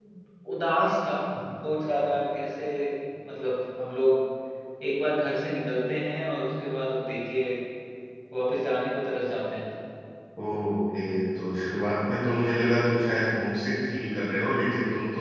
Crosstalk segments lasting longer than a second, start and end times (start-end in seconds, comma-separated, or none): none